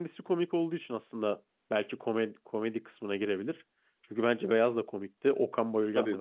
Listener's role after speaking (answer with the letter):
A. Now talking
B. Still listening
A